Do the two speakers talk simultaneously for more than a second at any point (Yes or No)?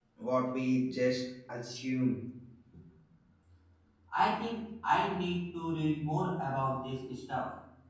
No